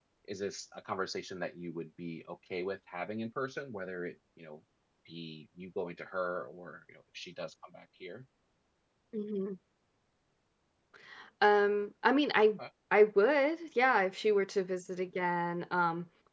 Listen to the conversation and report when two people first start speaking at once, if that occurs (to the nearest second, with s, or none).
none